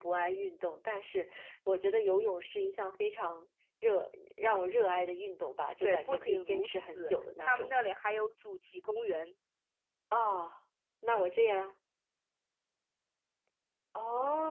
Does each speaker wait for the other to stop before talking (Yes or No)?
No